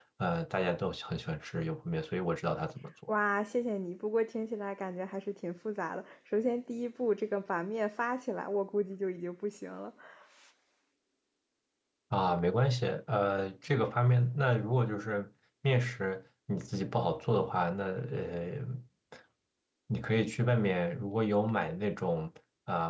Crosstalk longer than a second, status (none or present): none